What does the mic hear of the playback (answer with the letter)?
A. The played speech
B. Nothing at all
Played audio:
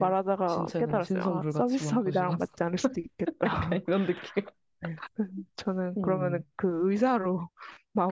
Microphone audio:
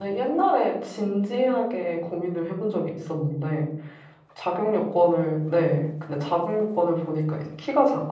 B